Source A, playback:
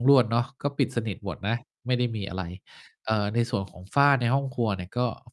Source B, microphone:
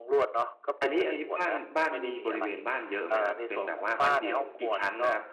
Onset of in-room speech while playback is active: 0.8 s

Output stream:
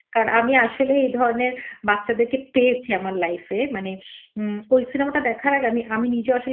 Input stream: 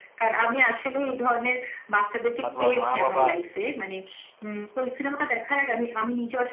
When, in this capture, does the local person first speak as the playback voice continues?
2.4 s

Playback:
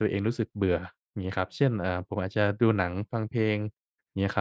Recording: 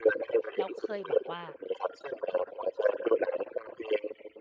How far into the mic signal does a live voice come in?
0.6 s

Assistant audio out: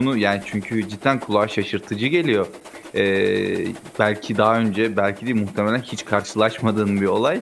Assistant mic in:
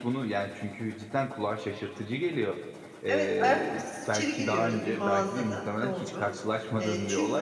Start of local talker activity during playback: 3.1 s

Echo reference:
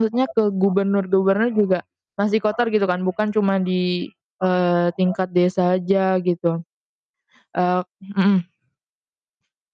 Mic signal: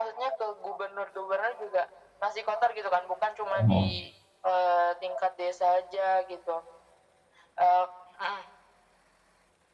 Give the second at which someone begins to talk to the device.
3.5 s

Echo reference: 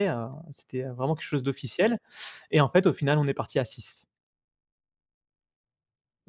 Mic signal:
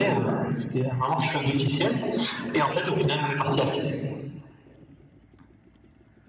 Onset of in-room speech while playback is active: none

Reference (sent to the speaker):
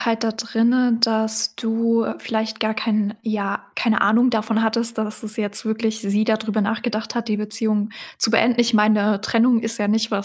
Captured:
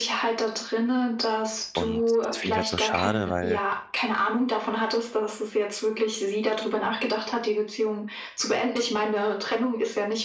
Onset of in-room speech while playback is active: 1.7 s

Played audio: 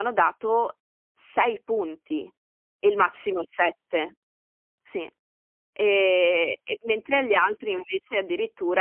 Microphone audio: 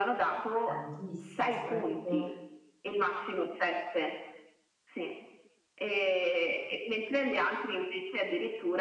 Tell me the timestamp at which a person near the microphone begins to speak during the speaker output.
0.7 s

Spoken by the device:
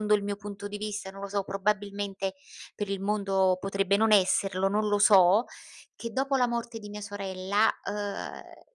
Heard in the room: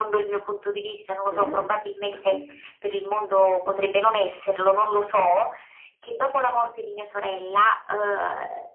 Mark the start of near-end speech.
1.3 s

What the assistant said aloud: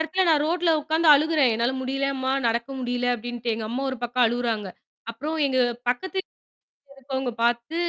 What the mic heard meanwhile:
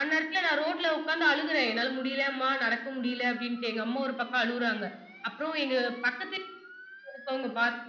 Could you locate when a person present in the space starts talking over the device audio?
none

